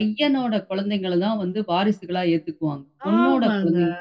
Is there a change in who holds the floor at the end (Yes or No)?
Yes